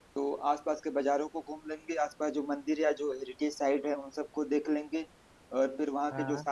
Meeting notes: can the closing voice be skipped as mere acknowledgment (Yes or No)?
Yes